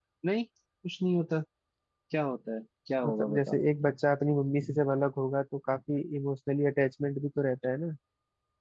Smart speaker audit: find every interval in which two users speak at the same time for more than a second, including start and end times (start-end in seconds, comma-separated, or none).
none